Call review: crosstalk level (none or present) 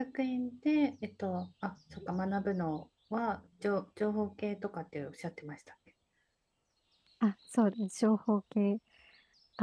none